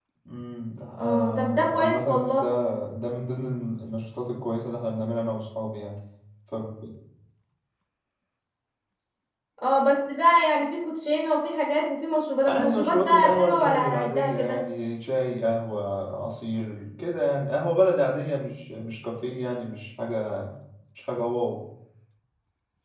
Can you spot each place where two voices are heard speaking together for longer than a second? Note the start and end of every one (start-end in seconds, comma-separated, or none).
1.0-2.5, 12.5-14.6